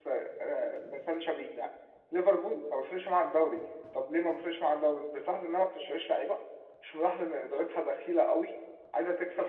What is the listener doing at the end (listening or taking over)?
taking over